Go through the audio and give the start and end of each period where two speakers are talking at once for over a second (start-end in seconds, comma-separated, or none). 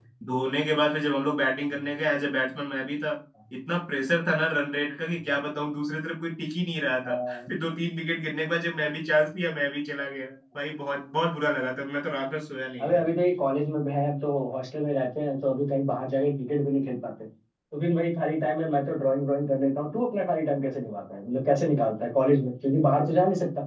none